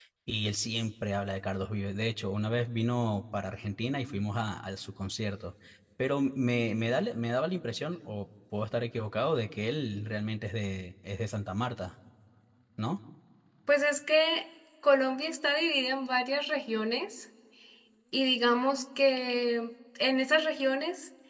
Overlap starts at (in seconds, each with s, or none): none